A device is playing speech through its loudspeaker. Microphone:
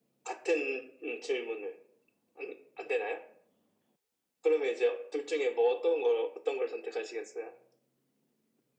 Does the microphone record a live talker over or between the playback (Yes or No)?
No